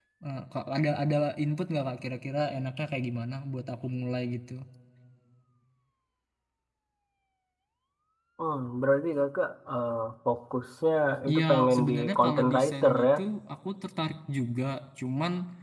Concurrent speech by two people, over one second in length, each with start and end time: 11.3-13.1

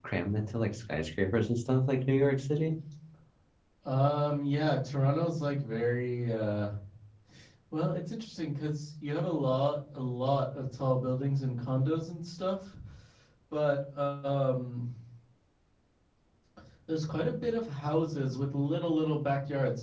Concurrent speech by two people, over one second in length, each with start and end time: none

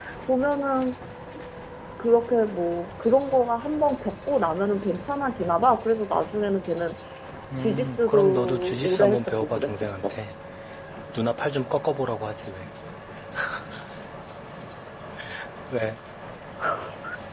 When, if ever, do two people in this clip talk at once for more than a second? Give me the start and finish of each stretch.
7.6-10.1

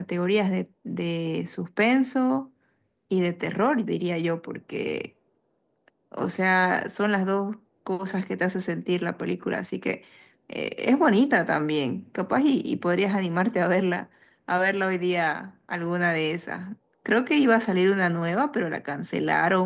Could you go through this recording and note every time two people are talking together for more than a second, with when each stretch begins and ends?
none

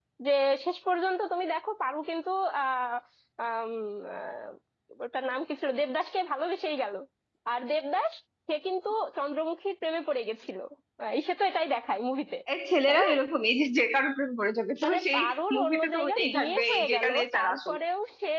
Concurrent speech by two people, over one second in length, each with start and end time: 14.8-17.8

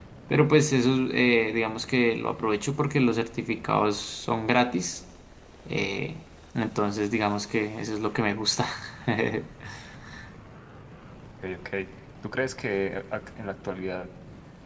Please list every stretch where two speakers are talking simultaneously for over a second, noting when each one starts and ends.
none

